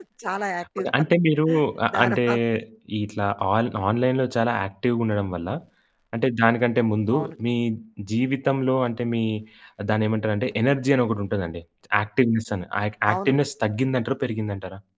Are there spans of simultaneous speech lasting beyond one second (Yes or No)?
No